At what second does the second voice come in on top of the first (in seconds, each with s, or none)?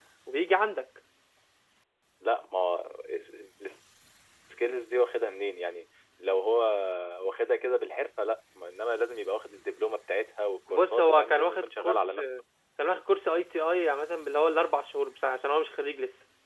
10.7 s